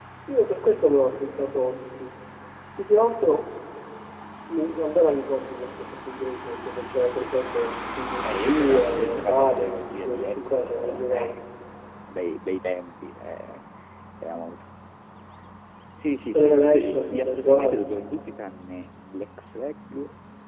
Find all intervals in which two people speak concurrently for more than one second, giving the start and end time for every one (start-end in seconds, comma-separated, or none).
8.2-11.4, 16.4-17.8